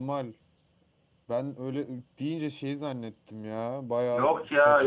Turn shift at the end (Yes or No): Yes